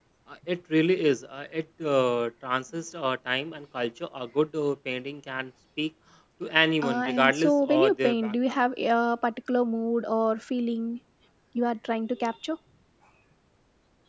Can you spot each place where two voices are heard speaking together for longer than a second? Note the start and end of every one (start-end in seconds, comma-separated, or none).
6.8-8.6